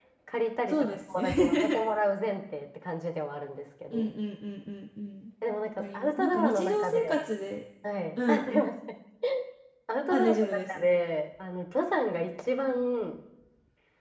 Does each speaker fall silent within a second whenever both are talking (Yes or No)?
No